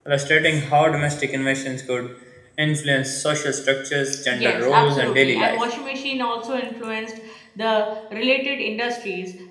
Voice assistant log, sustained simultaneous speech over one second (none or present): present